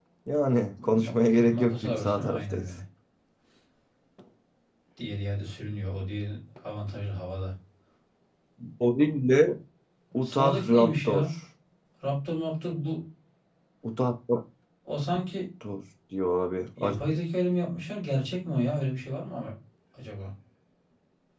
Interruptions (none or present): present